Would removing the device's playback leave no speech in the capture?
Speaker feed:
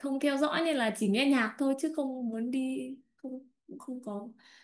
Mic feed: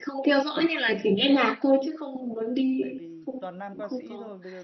No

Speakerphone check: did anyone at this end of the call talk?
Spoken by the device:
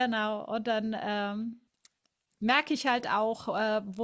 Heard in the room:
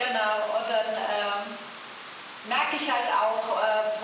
No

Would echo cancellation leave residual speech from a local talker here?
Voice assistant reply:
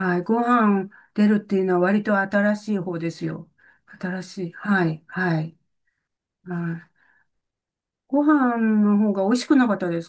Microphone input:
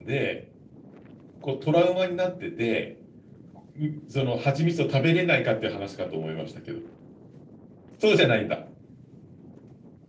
Yes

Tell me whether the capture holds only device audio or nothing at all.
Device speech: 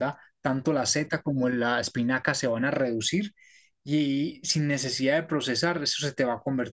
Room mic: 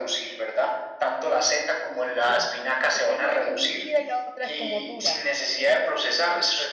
No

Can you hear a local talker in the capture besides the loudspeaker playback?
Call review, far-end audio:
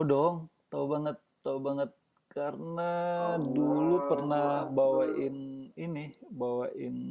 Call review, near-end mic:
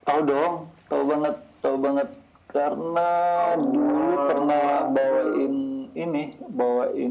No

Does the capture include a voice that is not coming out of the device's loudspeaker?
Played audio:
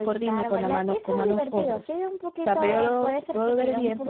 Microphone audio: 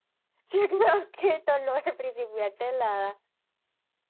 Yes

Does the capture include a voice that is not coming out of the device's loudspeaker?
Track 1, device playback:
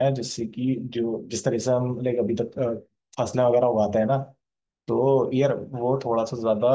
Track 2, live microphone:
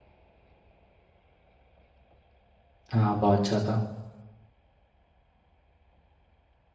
Yes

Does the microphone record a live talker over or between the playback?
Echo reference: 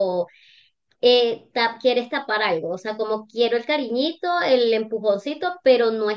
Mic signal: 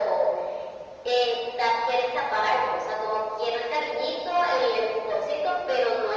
No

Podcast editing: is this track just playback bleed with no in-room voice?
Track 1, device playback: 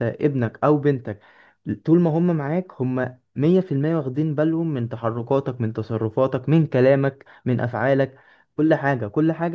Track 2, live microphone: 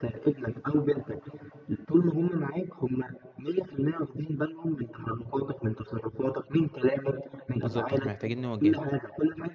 No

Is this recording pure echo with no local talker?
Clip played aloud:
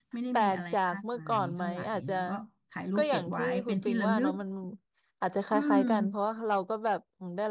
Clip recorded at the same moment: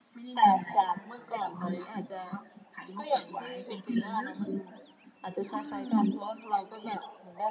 Yes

